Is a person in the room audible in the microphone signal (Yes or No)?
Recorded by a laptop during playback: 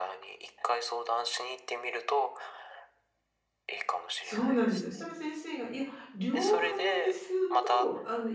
Yes